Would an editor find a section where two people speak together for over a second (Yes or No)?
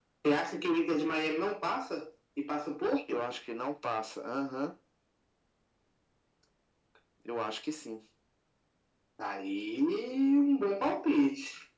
No